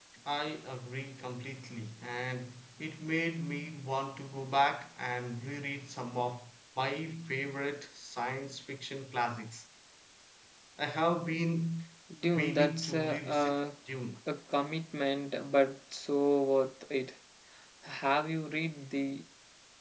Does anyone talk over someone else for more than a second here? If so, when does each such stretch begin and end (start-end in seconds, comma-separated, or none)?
12.3-13.6